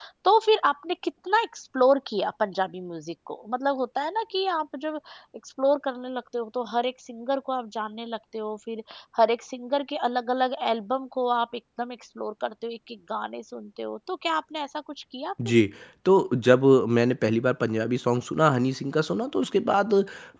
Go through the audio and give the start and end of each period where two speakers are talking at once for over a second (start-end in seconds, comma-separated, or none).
none